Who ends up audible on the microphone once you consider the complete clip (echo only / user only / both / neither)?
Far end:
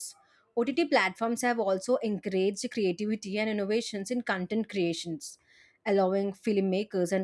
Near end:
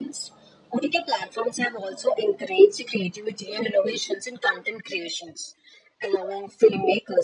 echo only